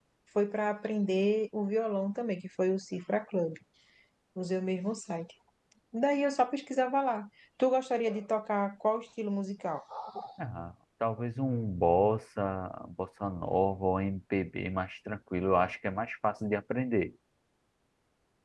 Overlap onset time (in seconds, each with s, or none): none